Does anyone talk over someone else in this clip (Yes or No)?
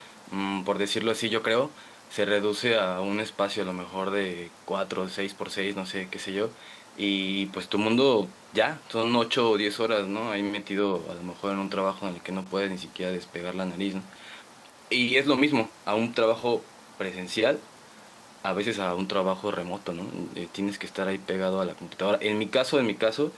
No